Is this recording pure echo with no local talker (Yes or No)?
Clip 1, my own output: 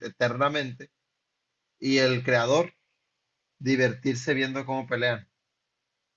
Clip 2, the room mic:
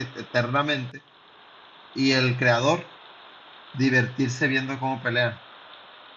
Yes